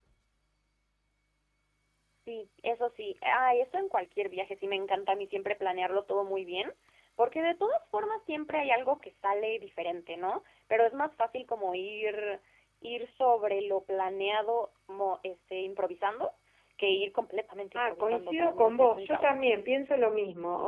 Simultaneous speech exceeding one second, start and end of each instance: 17.8-19.4

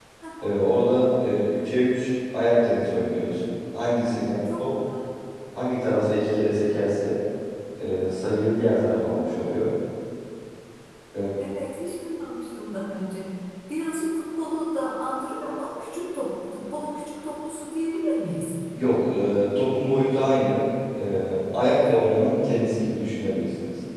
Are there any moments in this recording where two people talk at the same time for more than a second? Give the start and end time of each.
none

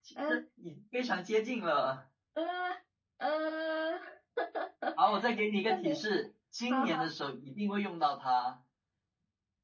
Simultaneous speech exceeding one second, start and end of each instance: none

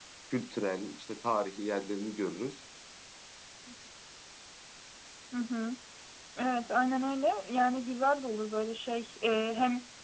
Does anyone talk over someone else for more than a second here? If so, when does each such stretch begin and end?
none

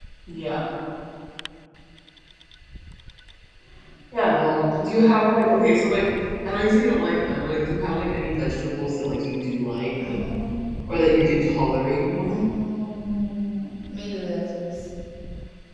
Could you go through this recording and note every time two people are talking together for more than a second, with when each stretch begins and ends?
none

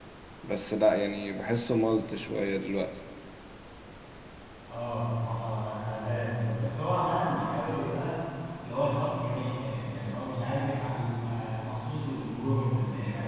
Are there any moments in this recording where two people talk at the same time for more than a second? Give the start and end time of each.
none

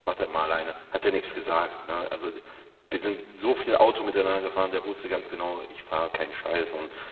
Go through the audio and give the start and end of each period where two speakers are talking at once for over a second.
none

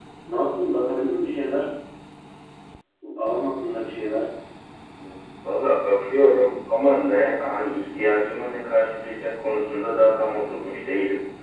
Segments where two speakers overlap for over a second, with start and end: none

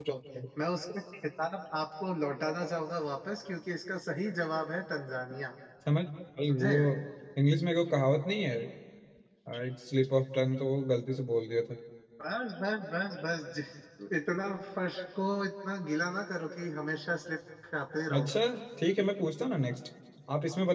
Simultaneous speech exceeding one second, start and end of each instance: none

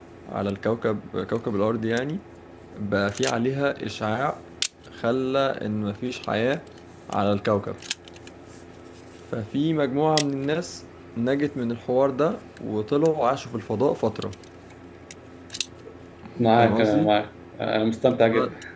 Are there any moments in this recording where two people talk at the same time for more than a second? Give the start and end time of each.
none

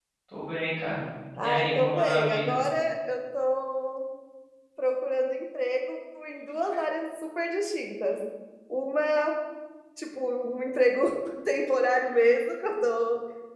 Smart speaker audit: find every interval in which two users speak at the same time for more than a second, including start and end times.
1.4-2.6

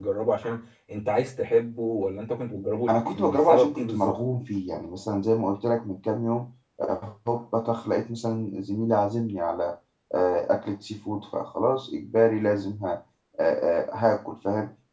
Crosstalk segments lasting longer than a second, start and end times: 2.9-4.2

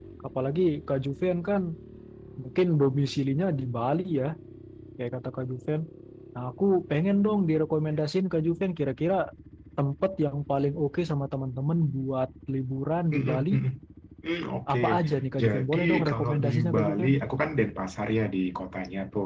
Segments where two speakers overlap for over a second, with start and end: 15.4-17.1

